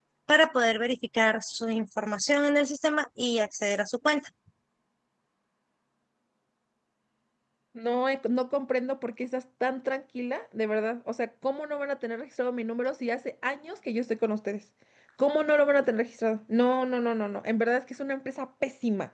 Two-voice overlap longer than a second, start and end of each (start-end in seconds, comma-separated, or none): none